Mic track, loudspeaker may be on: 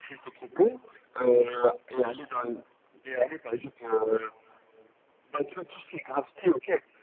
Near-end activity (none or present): none